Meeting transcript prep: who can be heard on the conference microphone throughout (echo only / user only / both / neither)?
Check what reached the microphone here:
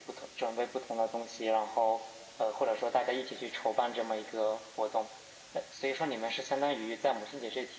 echo only